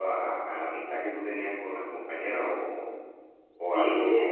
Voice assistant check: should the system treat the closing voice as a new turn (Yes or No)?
Yes